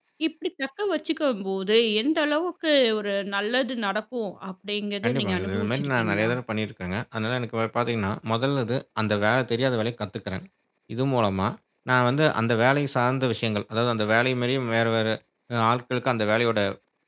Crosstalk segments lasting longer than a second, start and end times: 5.0-6.3

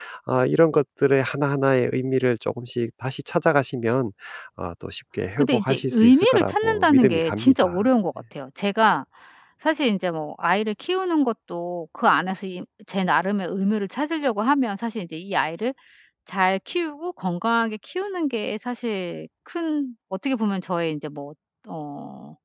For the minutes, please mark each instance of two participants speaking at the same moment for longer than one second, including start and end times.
5.4-7.8

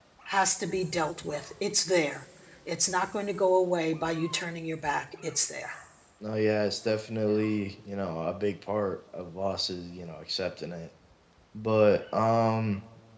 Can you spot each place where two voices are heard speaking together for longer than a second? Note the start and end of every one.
none

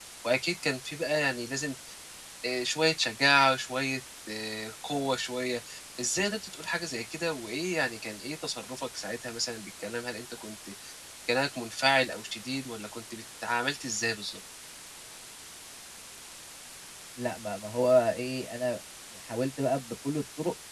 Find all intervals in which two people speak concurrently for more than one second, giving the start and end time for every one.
none

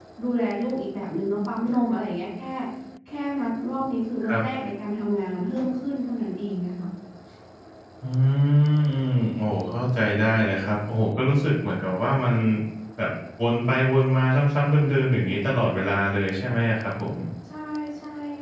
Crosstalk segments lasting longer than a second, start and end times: none

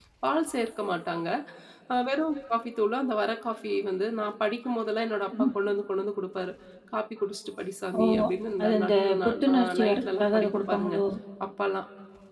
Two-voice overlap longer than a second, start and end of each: 8.6-11.0

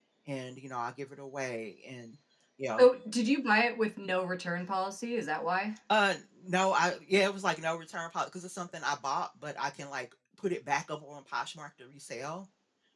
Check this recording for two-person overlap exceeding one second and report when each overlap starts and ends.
none

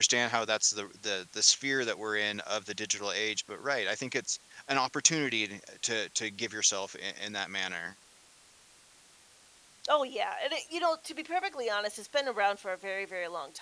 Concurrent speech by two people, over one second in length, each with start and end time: none

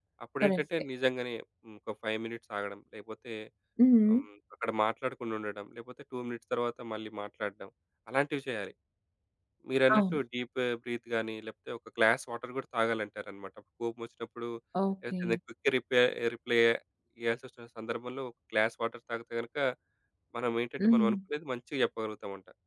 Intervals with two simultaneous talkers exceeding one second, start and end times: none

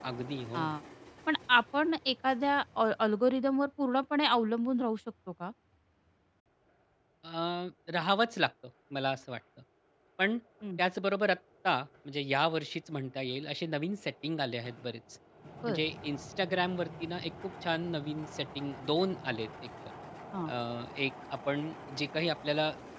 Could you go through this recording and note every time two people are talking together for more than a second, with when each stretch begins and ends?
none

